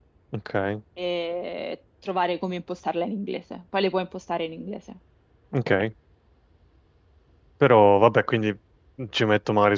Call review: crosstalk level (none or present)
none